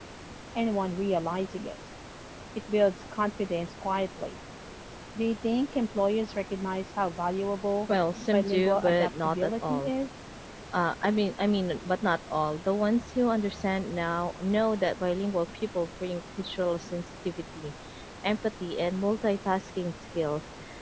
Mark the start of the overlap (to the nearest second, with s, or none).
8 s